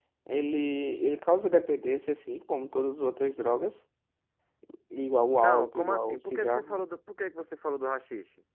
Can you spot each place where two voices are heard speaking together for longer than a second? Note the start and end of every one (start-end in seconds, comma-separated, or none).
5.4-6.8